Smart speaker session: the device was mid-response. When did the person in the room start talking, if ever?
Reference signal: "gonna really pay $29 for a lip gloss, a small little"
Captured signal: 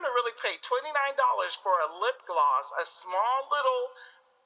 none

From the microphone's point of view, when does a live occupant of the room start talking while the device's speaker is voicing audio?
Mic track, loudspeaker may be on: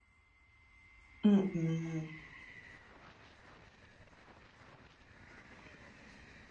1.2 s

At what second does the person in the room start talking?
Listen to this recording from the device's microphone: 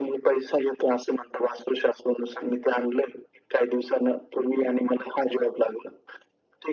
none

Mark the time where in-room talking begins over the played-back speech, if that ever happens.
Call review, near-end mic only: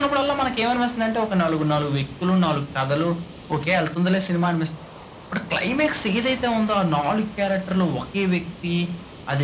none

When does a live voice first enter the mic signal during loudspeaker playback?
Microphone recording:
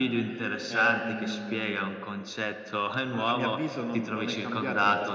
none

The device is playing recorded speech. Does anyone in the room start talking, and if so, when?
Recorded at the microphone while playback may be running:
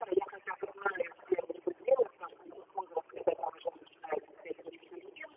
none

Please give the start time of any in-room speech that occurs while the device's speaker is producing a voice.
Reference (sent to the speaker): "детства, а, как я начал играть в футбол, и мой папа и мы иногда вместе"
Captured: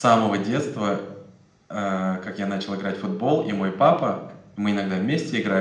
none

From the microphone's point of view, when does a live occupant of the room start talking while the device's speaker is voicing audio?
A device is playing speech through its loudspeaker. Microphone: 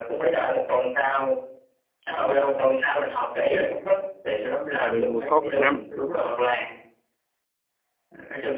4.8 s

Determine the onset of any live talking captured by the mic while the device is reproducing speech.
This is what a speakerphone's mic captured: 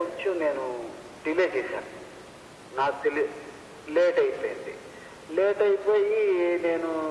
none

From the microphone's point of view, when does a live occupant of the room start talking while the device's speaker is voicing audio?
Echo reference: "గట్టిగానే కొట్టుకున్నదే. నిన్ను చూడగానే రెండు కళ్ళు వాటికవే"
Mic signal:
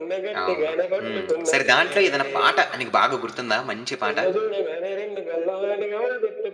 0.4 s

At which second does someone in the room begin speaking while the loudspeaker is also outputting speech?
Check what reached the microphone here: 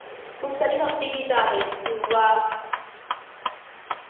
0.4 s

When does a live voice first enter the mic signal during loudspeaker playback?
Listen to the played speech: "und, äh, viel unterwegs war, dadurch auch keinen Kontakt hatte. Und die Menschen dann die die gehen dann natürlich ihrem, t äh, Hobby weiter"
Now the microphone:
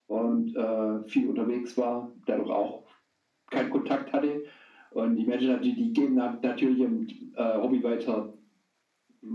none

